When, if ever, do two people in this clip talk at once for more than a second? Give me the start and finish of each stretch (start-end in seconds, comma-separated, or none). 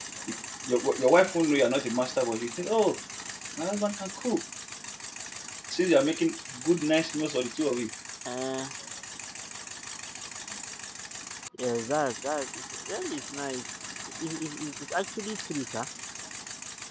none